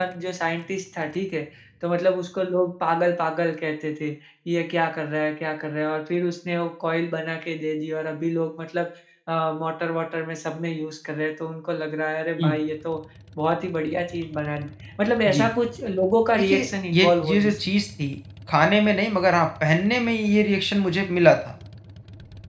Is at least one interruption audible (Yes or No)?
Yes